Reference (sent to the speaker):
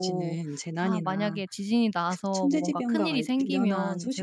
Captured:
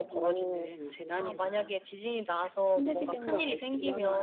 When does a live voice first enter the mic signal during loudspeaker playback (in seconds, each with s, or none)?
none